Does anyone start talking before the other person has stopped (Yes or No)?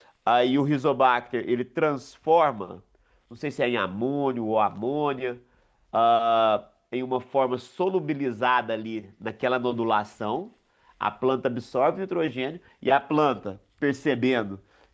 No